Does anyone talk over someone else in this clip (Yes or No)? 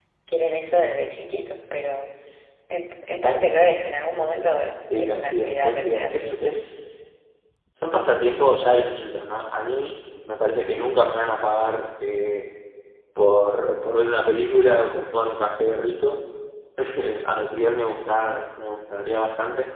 Yes